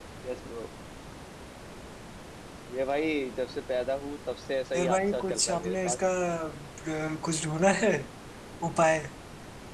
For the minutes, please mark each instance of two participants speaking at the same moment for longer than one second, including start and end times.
4.8-6.0

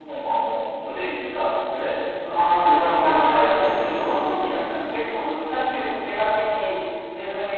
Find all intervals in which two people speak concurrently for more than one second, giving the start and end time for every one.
2.3-4.2

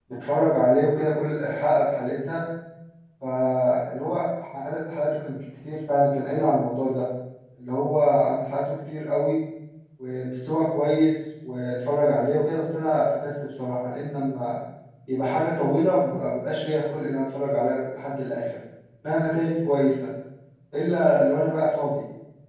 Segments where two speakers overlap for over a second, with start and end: none

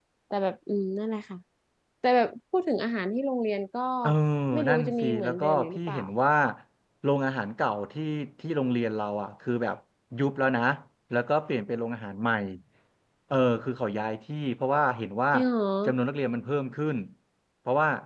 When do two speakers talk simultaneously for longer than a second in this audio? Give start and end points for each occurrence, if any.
4.7-6.0

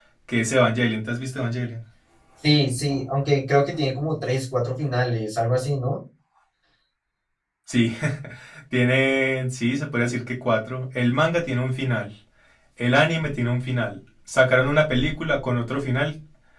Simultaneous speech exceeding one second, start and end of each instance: none

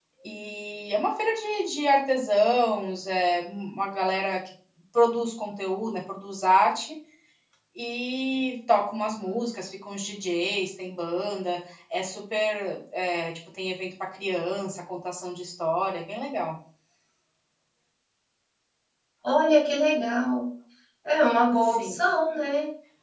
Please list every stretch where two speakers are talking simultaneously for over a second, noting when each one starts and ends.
none

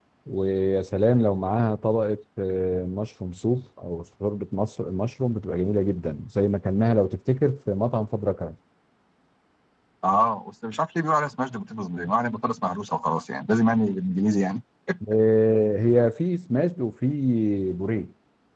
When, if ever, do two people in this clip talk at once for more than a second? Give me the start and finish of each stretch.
none

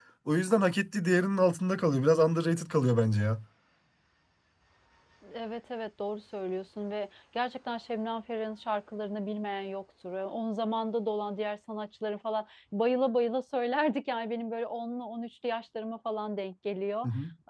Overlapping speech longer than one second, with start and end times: none

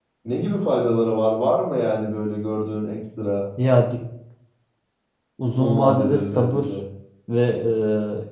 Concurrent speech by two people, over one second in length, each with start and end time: 5.5-6.7

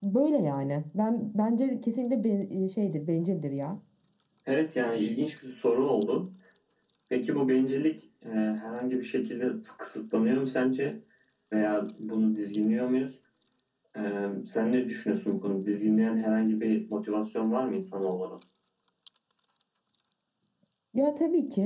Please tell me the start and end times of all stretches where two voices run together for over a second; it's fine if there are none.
none

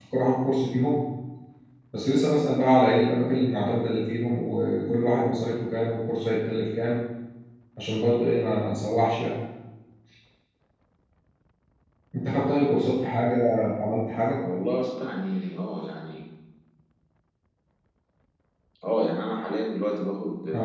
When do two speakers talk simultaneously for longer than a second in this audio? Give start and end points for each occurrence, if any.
none

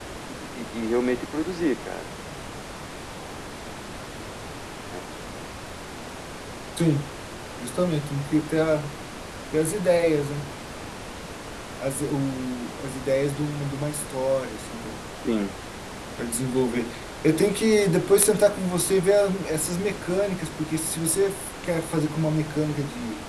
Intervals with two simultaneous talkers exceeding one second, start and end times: none

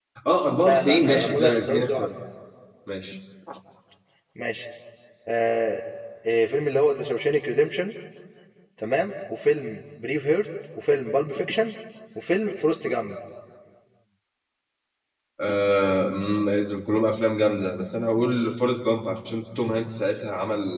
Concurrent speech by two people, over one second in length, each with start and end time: 0.6-2.1

